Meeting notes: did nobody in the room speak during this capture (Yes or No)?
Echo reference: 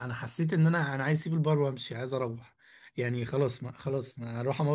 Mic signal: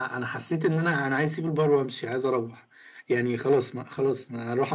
Yes